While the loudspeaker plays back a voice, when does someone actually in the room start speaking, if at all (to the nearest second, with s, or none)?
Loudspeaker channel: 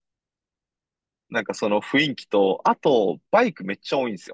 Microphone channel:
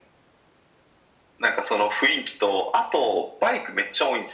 none